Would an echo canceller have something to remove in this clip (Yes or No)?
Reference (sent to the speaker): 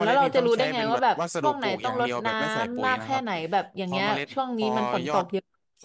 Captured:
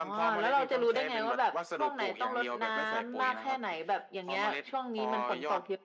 Yes